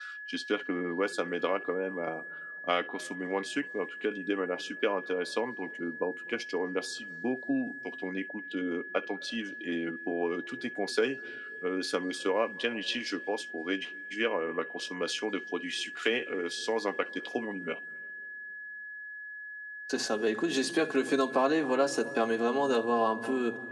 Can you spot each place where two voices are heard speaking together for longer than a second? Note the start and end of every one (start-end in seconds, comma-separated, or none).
none